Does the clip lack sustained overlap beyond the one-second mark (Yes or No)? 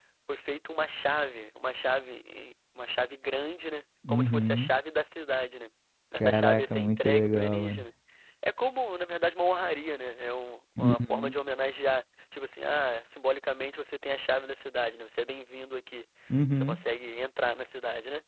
No